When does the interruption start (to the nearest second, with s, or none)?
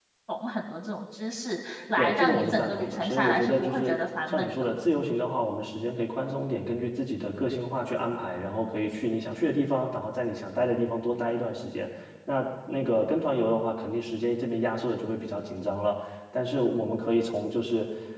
2 s